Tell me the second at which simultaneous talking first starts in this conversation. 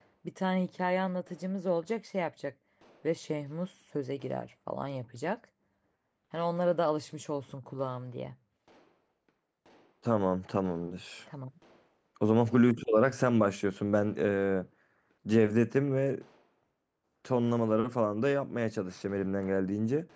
none

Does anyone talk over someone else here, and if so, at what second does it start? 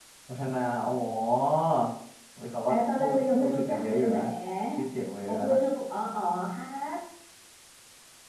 2.7 s

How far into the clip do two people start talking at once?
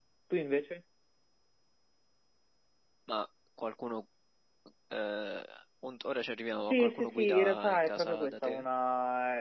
6.7 s

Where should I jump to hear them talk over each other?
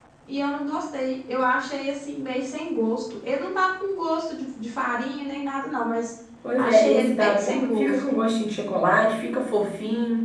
6.6 s

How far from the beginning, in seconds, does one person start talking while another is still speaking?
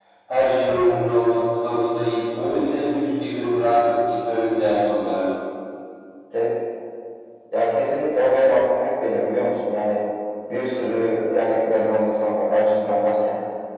none

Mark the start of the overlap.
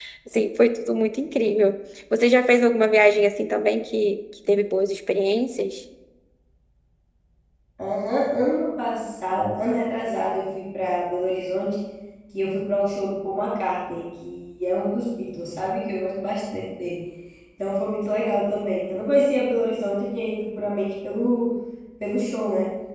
none

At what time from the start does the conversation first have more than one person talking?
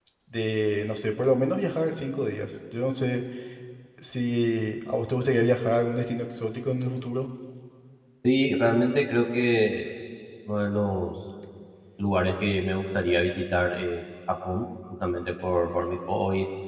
none

